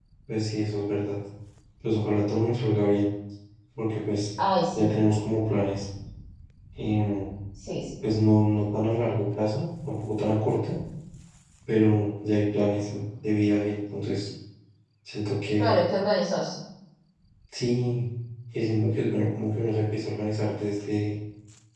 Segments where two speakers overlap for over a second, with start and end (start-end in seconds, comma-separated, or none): none